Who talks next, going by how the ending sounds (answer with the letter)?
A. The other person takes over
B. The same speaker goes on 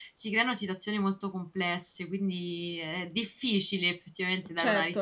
A